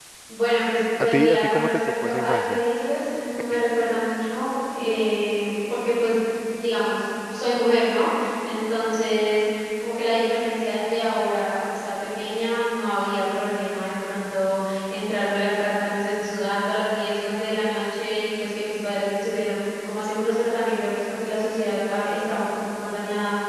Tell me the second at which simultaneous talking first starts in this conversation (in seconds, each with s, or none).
1.0 s